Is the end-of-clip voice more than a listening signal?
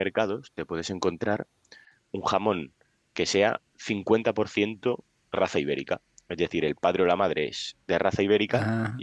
No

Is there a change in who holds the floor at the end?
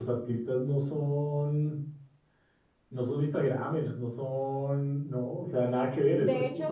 Yes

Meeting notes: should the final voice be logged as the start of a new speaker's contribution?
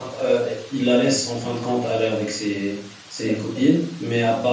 No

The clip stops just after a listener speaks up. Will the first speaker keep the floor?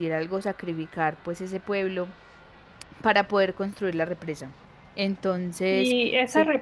No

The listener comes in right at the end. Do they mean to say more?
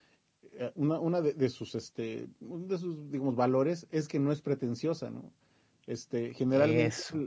No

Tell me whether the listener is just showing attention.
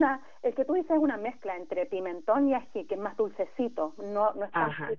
No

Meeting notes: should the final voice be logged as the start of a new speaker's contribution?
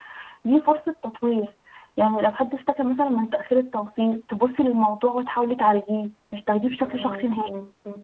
Yes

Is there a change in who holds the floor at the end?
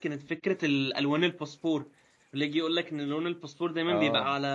No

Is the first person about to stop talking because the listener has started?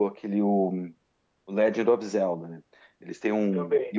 No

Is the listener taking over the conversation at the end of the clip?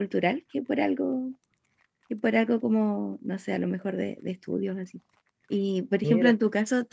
No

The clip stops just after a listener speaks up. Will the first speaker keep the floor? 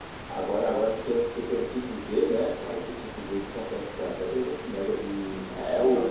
No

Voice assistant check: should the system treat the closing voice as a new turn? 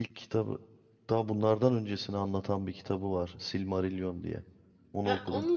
Yes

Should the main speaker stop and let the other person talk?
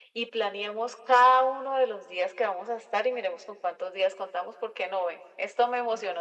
Yes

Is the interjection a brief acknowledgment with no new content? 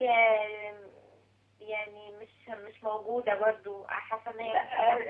No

